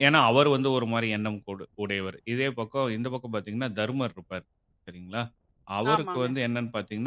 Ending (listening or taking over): listening